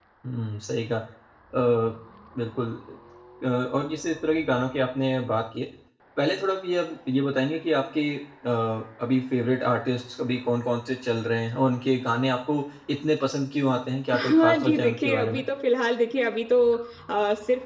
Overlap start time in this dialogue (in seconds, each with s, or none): 14.1 s